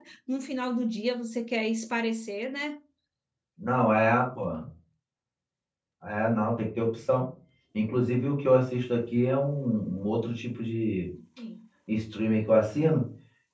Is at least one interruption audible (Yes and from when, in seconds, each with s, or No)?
No